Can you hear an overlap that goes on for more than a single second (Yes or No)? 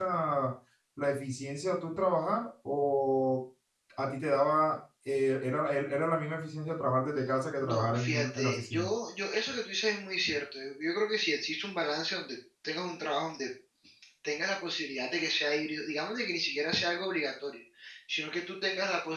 Yes